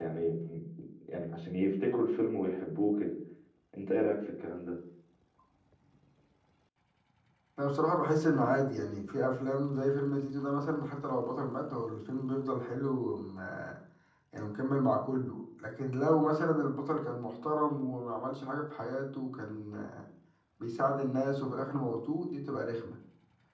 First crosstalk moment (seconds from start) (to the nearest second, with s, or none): none